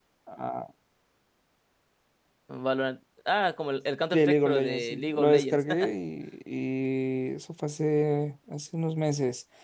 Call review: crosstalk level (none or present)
present